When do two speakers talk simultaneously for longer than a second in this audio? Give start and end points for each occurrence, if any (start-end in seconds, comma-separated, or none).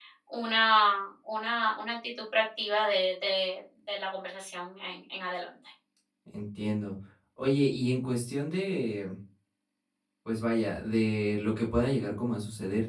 none